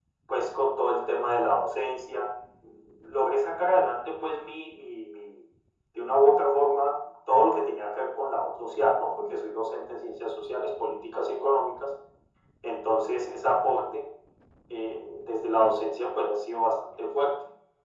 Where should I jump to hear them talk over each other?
none

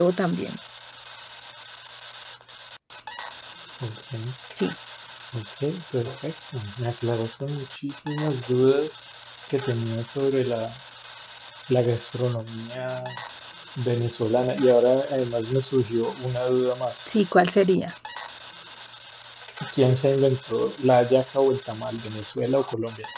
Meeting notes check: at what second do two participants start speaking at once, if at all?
none

